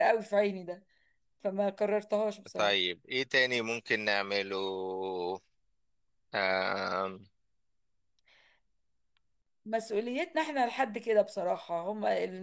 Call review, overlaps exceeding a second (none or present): none